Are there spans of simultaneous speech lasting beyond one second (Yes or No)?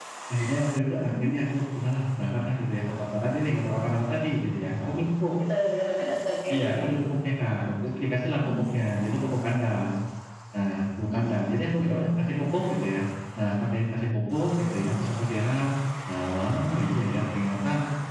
No